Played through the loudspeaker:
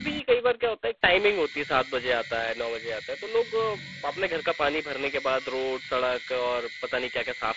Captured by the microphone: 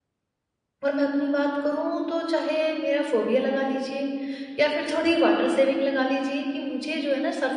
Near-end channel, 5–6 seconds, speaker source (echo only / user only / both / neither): user only